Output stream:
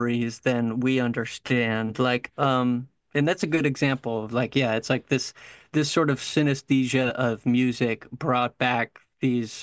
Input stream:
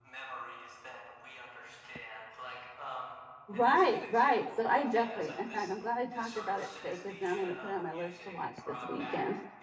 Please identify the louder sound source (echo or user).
user